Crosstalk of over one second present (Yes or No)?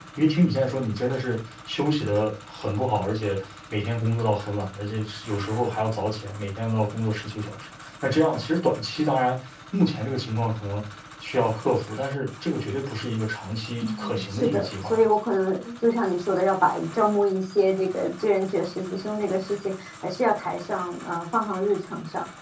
Yes